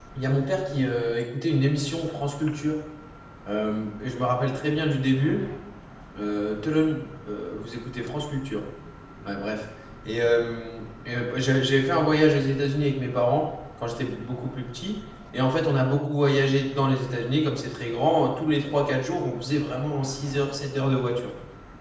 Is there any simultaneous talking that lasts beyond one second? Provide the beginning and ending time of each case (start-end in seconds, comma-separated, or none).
none